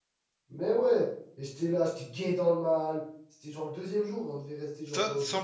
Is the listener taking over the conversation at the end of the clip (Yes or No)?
Yes